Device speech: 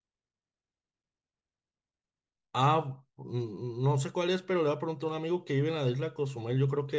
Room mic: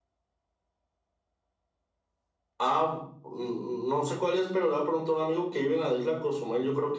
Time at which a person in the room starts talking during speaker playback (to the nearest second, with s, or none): none